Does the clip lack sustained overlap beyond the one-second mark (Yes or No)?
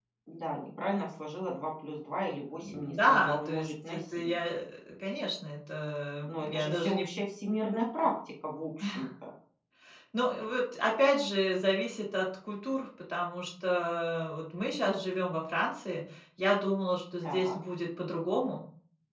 No